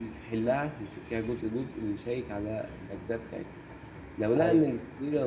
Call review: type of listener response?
listening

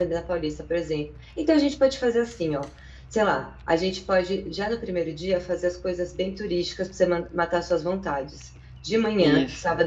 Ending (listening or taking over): listening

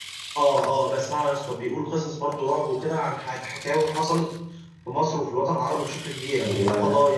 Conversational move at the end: listening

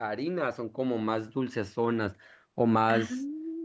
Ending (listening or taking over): listening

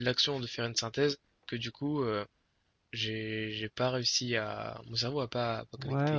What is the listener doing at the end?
taking over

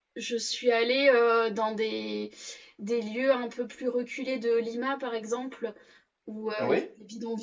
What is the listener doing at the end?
listening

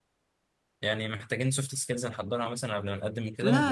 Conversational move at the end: taking over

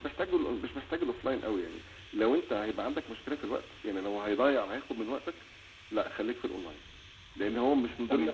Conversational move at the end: listening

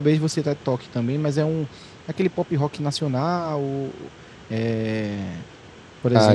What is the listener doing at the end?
taking over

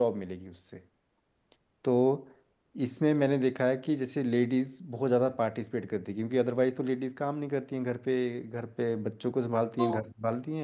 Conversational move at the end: listening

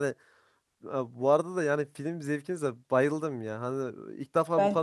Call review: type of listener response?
listening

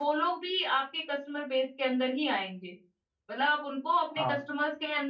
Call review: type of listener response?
listening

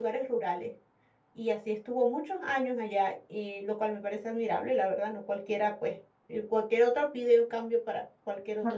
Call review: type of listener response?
taking over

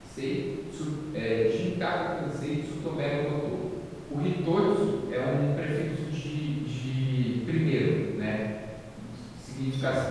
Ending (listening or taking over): listening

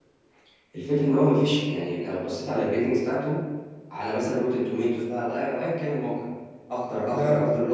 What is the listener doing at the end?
listening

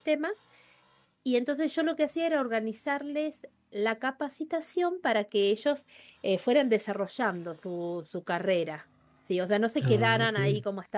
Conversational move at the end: listening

